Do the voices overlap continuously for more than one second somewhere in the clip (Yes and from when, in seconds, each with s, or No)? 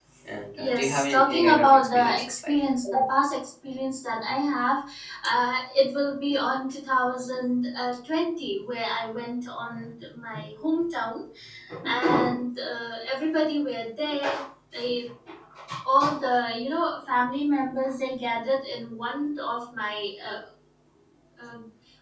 Yes, from 0.6 s